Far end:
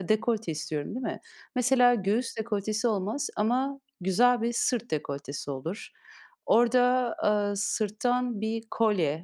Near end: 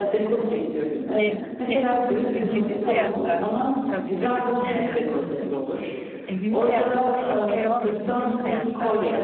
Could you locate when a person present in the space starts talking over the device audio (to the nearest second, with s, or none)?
1 s